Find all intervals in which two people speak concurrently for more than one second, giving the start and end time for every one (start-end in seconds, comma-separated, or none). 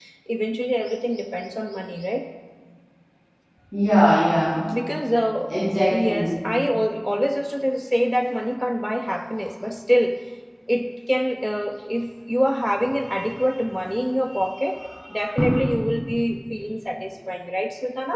none